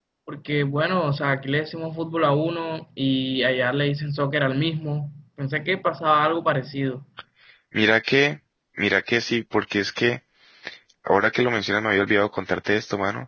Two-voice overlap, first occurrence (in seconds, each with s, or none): none